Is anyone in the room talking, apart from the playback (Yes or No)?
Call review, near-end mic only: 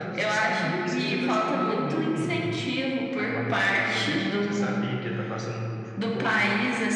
No